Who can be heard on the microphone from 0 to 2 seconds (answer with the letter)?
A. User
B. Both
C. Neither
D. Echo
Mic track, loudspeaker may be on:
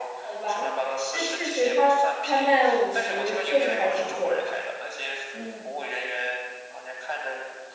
B